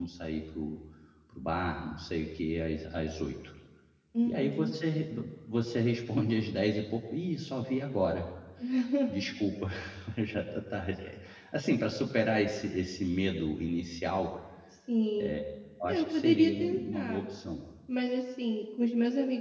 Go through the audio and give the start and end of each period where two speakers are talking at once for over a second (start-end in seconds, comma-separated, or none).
15.9-17.2